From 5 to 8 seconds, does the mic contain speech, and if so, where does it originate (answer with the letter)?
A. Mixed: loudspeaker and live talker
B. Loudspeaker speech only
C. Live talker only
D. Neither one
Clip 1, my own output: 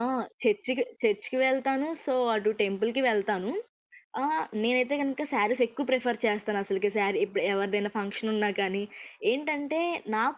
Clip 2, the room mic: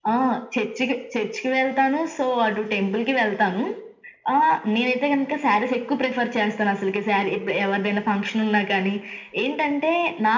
B